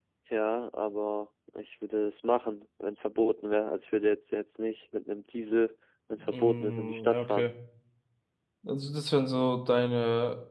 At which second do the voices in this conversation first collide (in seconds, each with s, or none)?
6.2 s